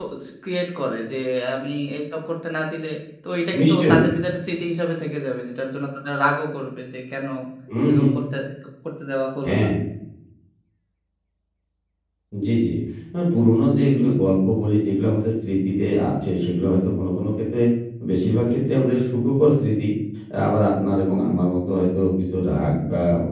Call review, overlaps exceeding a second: none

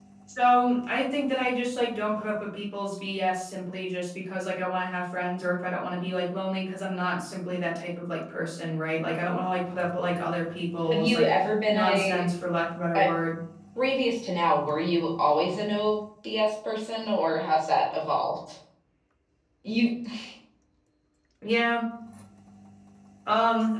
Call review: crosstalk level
present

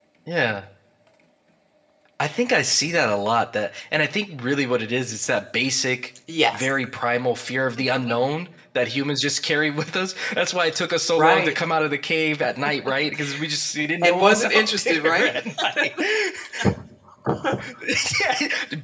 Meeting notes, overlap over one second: present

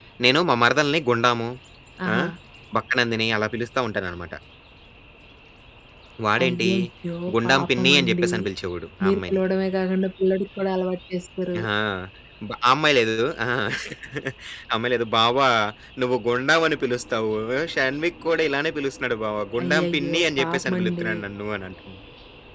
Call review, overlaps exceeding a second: present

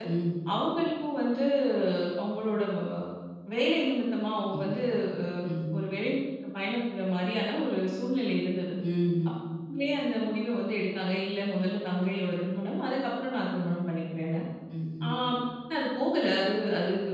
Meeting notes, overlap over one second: none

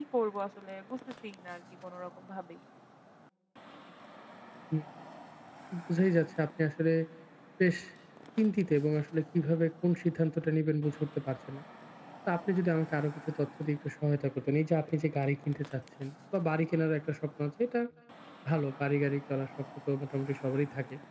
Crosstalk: none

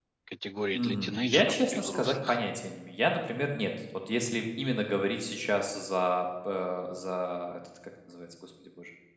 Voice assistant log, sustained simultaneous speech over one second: present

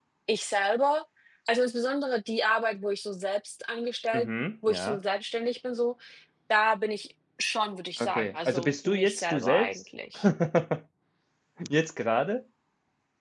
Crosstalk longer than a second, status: present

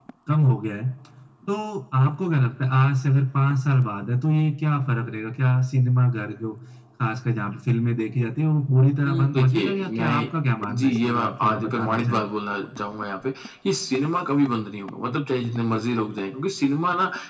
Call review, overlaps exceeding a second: present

